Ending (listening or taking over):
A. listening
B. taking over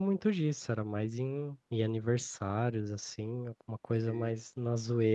A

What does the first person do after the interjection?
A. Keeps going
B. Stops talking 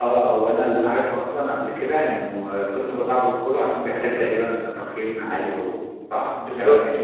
B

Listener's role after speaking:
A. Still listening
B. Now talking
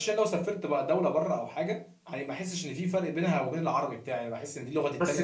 B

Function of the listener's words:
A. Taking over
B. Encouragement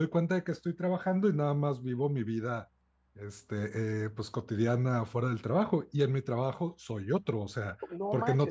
A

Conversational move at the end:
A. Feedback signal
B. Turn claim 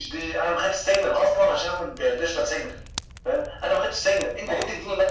A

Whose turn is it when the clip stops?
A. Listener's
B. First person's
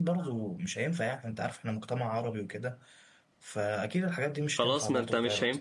A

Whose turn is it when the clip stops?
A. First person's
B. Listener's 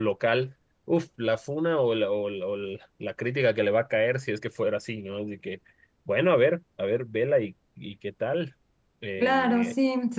B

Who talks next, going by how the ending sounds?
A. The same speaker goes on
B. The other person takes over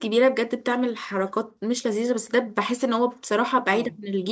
A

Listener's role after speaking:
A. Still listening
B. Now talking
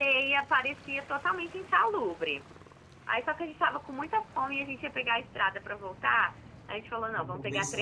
A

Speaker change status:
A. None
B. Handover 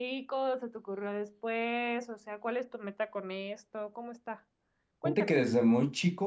B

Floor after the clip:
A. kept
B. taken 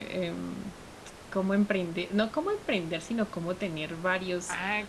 B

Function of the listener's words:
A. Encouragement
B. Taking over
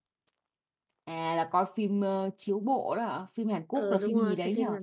B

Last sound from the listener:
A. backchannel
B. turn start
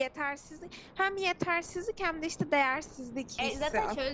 B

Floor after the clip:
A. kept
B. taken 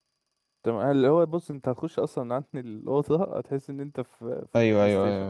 B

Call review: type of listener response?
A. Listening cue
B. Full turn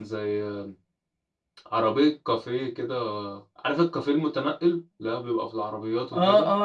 B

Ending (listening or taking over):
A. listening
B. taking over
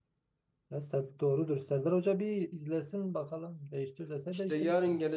B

